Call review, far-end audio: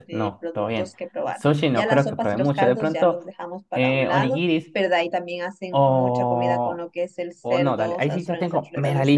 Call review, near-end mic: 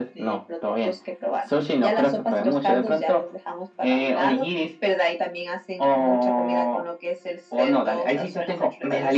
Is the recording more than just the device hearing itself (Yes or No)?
No